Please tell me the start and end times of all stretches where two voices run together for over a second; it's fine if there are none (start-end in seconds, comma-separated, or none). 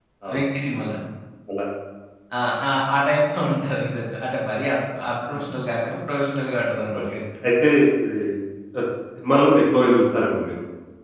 none